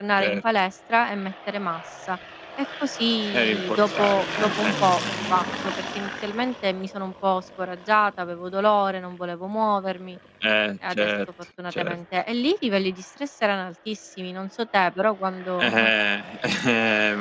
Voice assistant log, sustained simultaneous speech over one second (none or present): present